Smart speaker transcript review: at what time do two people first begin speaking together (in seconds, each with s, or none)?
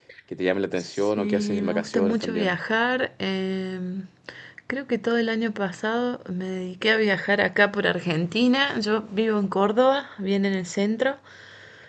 0.9 s